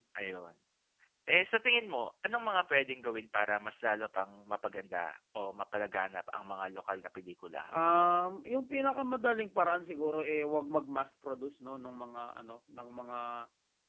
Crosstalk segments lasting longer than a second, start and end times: none

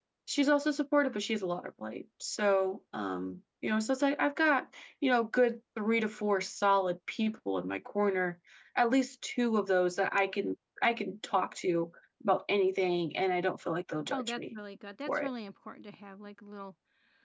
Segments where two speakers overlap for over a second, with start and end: none

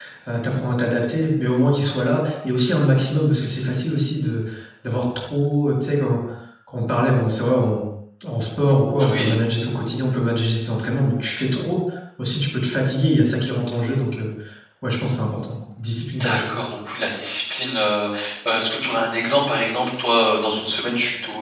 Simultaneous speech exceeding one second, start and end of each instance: none

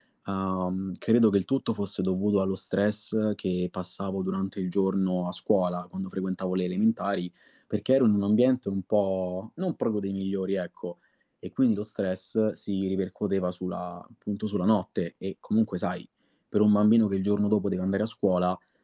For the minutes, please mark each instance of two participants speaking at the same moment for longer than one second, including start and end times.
none

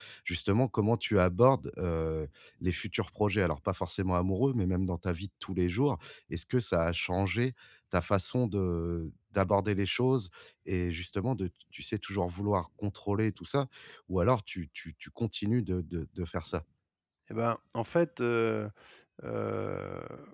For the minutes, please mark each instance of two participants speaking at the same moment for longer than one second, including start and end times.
none

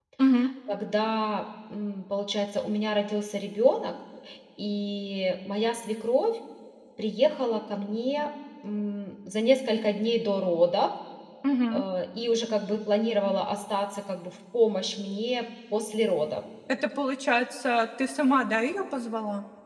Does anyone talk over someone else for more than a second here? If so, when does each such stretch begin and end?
none

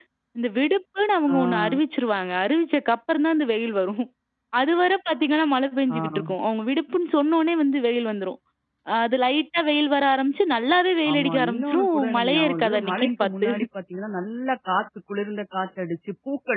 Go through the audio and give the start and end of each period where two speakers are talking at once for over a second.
11.1-13.5

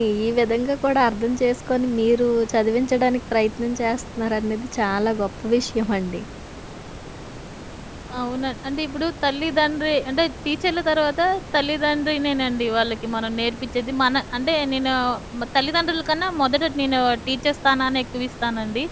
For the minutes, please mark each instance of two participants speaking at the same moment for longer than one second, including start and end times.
none

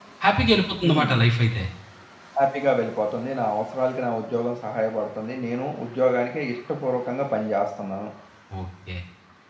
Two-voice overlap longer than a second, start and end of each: none

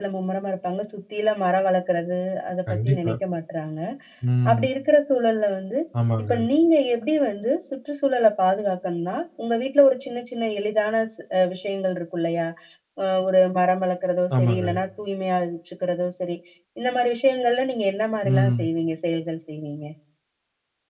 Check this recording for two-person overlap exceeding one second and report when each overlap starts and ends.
none

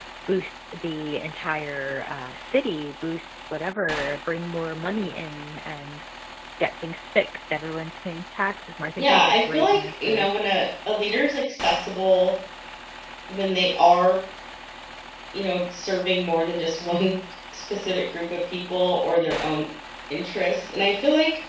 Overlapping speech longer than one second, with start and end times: 9.0-10.3

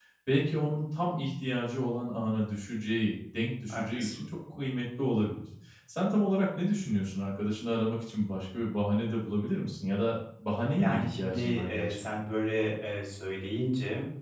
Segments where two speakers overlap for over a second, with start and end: 10.8-12.0

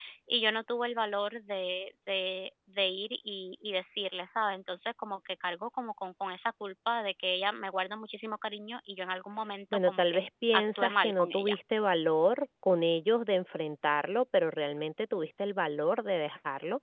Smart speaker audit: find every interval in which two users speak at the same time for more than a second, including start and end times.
9.8-11.6

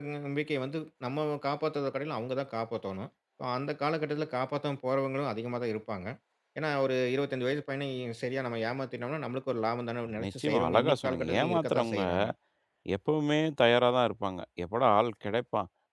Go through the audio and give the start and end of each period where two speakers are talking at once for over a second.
10.2-12.0

